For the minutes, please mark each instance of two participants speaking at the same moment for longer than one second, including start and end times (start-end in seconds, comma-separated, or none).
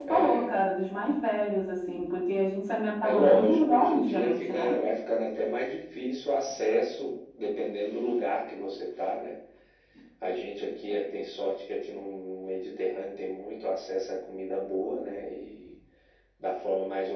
3.0-4.8